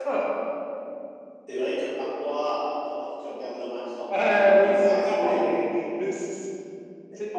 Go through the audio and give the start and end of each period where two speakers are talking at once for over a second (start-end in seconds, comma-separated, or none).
4.1-5.7